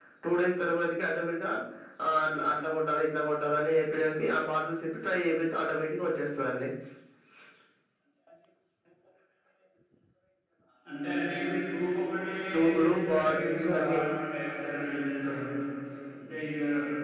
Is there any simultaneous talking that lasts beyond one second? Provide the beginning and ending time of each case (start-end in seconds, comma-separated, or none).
12.7-14.0